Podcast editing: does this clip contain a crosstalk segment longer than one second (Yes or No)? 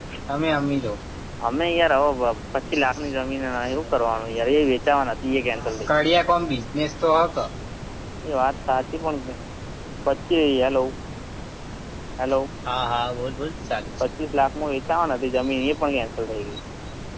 No